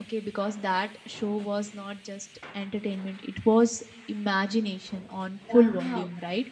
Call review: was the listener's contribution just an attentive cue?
No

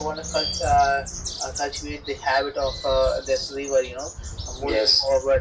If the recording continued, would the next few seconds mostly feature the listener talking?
No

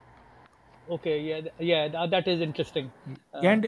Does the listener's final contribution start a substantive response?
Yes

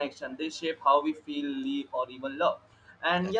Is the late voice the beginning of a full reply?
No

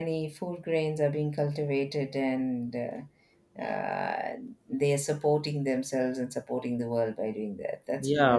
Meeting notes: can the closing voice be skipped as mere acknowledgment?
No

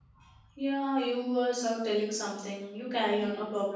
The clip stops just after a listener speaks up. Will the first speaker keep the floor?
No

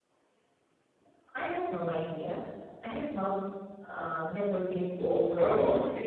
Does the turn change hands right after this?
Yes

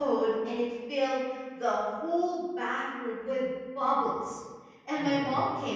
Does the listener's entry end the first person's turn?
No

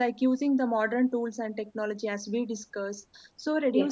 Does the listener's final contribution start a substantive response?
No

